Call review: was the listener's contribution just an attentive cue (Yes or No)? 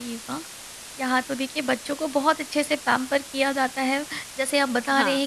Yes